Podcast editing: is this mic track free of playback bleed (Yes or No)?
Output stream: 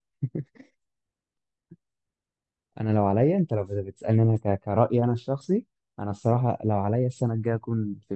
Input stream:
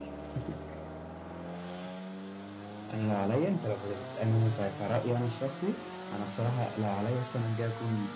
No